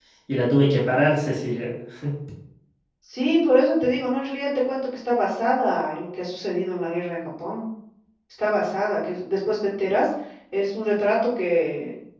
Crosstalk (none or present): none